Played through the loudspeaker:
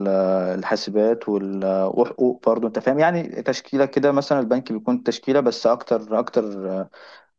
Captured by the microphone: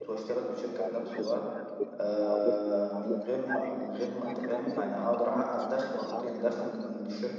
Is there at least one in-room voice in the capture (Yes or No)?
Yes